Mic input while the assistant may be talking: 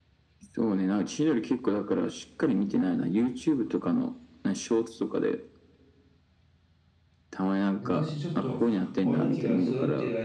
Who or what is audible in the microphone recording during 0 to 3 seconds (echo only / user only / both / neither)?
echo only